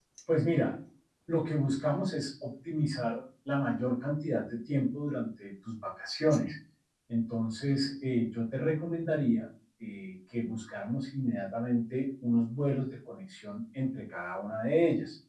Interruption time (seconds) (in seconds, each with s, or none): none